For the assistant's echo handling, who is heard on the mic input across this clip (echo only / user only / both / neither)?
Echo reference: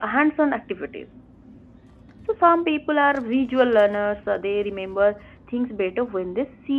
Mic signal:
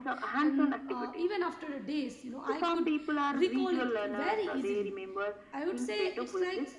both